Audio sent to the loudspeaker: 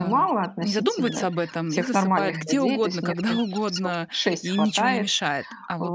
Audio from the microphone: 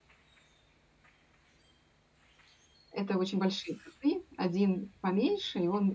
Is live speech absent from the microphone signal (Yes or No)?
No